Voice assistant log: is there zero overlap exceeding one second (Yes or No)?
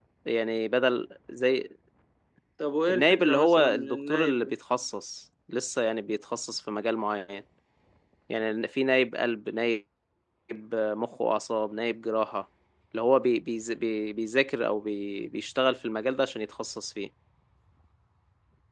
No